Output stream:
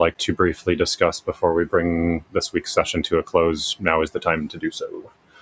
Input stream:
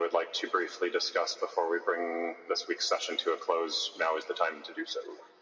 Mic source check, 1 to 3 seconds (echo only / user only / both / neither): echo only